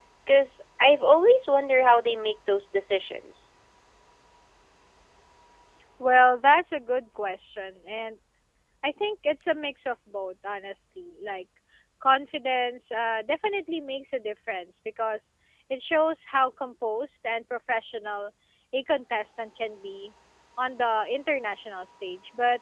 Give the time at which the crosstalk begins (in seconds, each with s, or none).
none